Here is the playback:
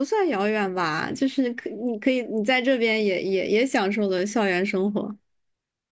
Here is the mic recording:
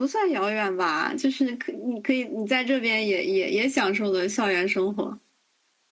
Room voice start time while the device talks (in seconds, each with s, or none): none